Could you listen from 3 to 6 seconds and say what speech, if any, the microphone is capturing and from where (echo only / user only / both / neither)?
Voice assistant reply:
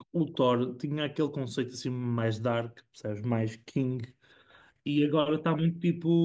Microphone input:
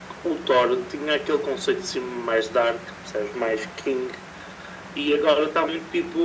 echo only